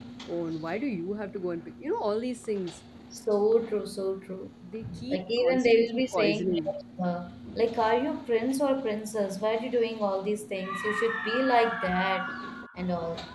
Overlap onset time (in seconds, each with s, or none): 5.1 s